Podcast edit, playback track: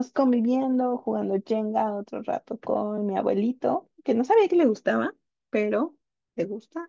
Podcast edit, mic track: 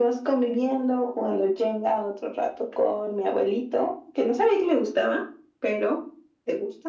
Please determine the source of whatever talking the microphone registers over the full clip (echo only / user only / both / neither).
echo only